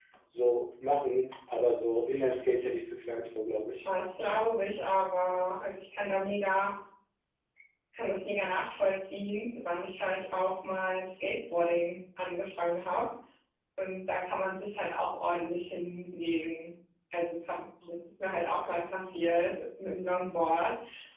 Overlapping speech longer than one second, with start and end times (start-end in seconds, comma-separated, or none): none